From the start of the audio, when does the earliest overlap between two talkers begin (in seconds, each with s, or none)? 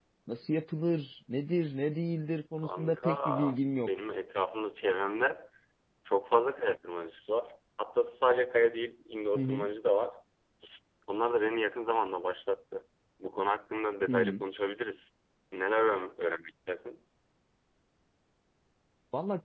2.6 s